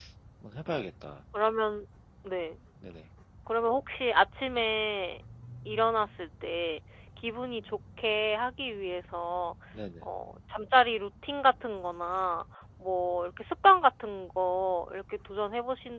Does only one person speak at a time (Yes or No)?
Yes